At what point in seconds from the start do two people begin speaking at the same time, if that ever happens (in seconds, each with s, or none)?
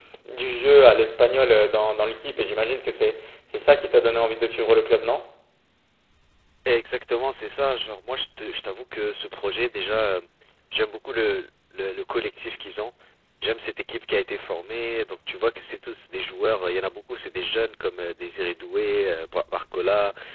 none